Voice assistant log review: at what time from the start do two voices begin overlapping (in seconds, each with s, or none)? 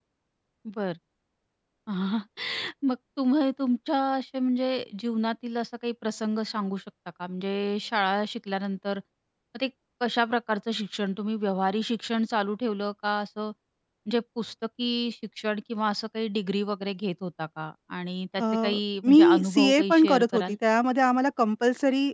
18.4 s